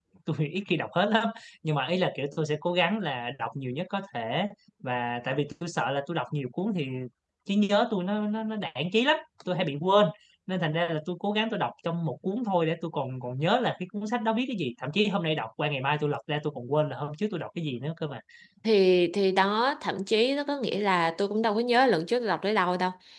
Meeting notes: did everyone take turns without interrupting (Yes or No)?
Yes